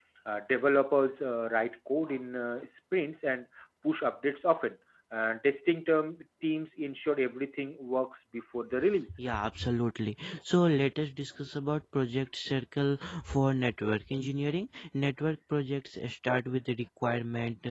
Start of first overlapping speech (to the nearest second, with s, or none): none